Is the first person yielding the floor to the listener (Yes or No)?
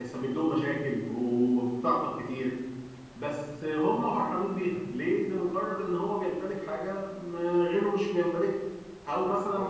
No